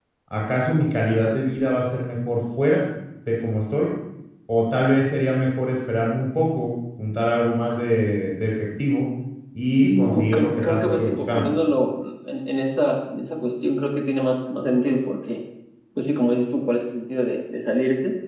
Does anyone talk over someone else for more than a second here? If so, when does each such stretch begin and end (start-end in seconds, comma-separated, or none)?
9.8-11.5